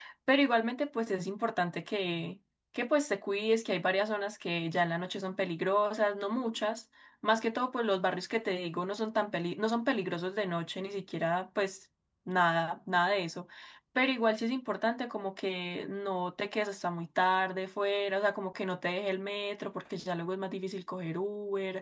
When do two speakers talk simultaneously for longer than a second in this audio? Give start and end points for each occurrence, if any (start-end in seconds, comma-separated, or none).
none